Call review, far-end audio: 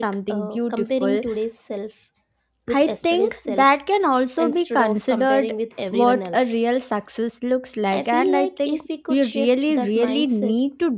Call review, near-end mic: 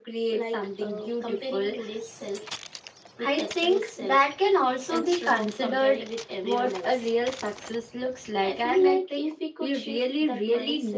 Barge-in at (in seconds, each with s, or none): none